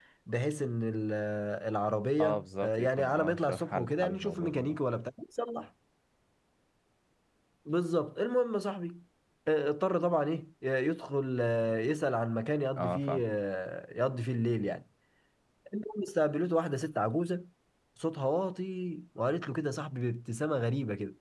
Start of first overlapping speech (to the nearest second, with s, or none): 2 s